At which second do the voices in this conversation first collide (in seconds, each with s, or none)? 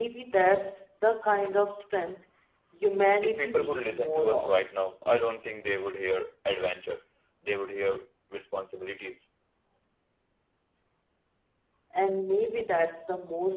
3.2 s